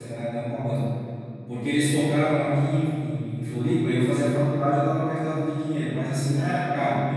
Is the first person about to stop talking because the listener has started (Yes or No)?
No